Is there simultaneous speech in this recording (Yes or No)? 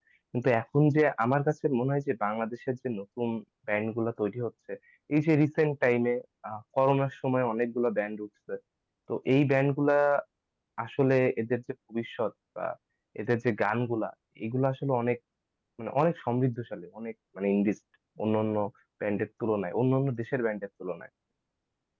No